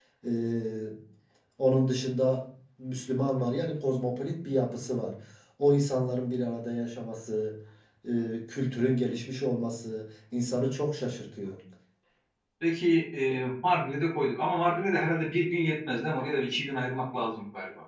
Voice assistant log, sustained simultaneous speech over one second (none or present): none